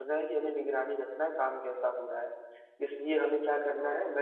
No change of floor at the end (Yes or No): Yes